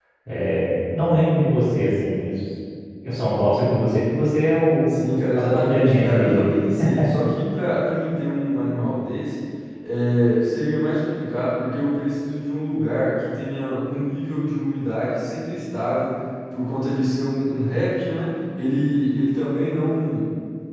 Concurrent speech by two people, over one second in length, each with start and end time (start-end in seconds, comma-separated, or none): 5.4-6.6